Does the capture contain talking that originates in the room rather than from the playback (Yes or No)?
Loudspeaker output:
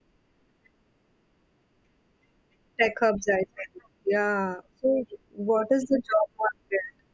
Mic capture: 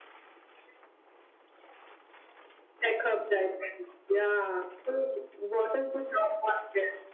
No